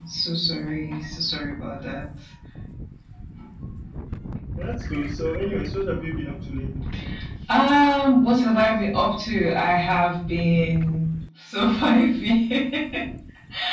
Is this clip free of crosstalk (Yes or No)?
Yes